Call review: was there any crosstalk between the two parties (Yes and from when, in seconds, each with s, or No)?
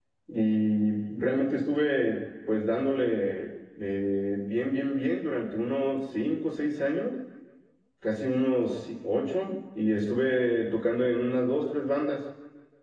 No